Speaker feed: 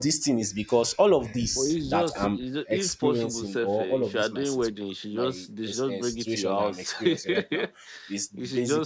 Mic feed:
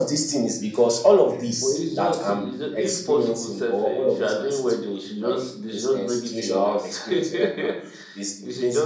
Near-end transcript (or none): none